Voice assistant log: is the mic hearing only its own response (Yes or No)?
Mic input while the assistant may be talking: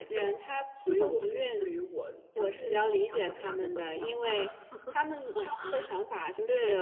Yes